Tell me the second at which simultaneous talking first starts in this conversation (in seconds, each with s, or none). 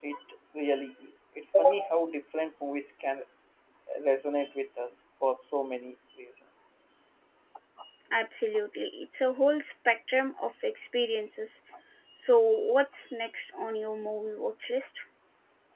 none